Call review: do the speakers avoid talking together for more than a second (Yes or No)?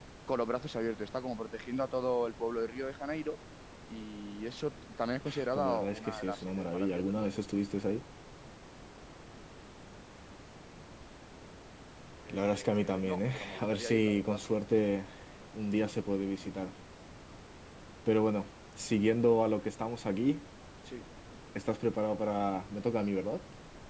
No